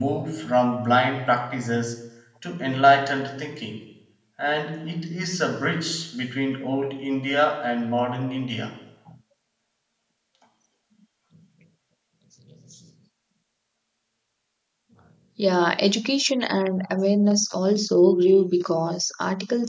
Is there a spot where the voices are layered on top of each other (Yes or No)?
No